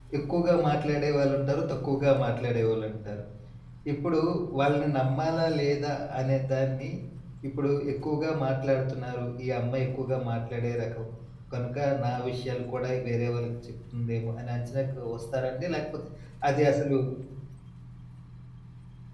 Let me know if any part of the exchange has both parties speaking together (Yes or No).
No